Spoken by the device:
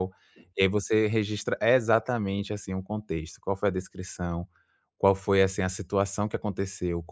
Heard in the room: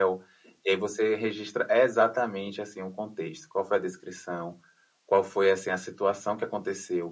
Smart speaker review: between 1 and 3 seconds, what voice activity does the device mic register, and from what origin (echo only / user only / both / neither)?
echo only